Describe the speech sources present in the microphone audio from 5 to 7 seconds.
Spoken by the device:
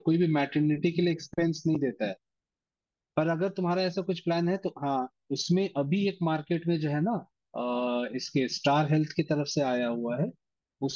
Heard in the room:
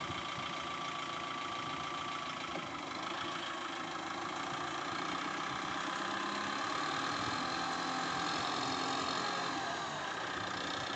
neither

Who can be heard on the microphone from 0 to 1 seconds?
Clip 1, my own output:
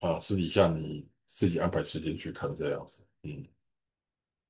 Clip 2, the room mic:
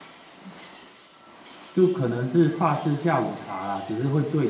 neither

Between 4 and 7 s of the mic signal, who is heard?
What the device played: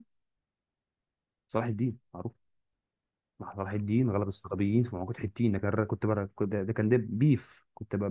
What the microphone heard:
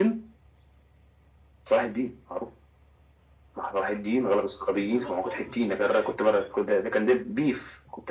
both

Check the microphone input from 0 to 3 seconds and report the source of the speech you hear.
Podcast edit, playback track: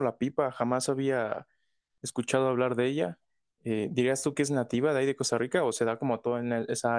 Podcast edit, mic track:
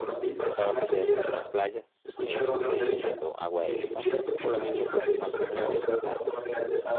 both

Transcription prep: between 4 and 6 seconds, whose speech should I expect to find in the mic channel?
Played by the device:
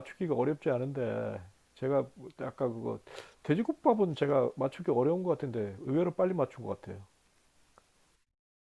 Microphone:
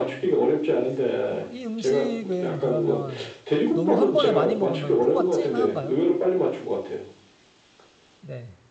both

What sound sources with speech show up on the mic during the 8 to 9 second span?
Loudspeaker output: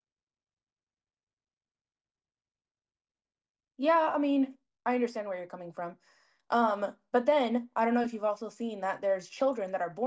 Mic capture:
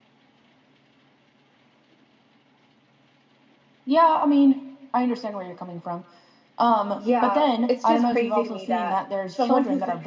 both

